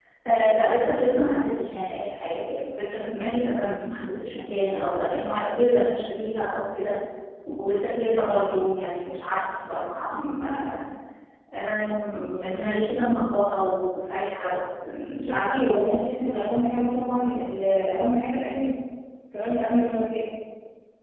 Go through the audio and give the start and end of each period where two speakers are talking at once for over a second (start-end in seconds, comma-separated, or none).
none